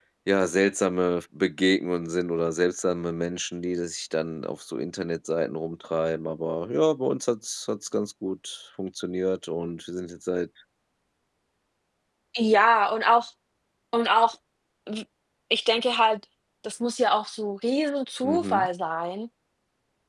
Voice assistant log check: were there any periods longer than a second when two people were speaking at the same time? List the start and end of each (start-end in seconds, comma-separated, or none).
none